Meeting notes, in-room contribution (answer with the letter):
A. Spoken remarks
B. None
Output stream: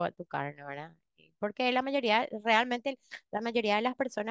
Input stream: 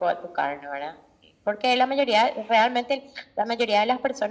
B